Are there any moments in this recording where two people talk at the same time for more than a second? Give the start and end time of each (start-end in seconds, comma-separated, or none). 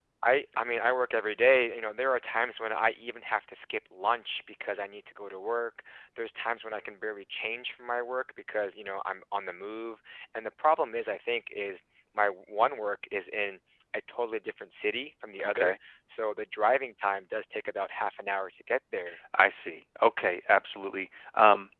none